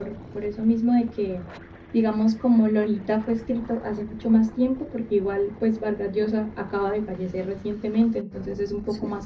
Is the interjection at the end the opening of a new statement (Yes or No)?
No